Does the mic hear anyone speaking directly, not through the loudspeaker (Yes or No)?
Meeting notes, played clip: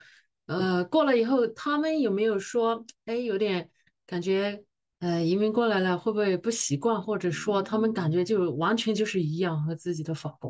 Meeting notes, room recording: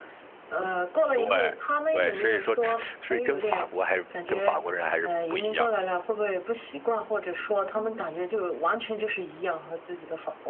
Yes